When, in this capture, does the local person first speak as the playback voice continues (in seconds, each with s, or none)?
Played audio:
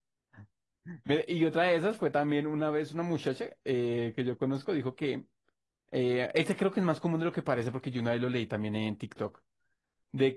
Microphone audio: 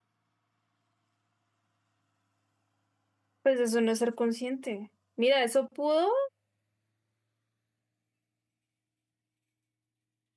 3.4 s